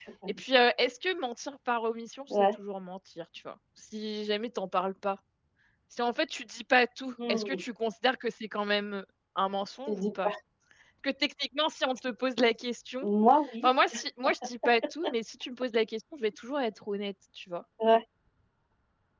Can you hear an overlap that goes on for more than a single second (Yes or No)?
No